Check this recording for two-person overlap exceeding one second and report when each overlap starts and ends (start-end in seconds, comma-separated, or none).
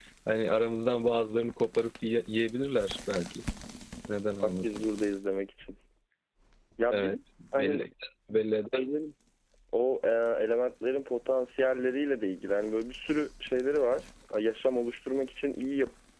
none